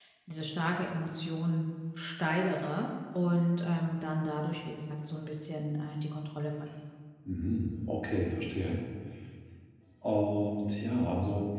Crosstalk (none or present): none